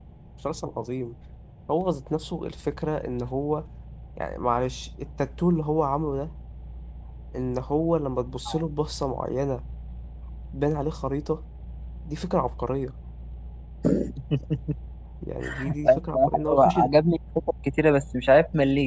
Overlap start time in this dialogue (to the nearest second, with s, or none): 16 s